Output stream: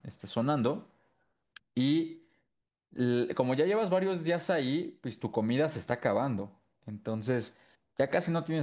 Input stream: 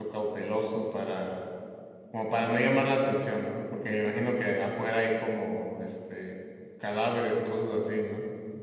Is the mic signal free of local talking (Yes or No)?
No